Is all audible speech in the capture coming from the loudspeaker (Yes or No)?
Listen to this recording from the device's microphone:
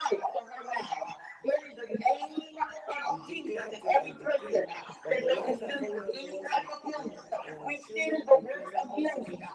No